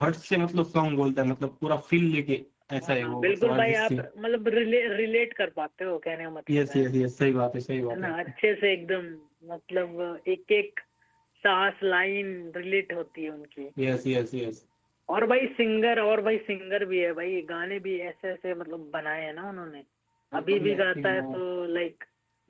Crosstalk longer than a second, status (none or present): present